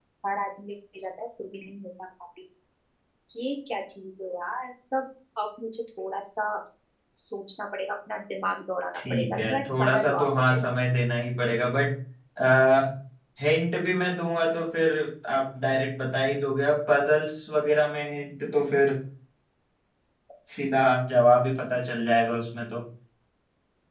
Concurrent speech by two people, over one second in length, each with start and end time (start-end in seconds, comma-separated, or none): 8.9-10.6